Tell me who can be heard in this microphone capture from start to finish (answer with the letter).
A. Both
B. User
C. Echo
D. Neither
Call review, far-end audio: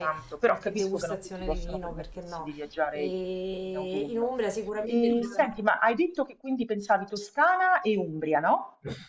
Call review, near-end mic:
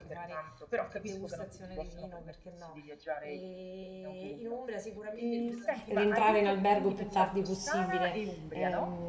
A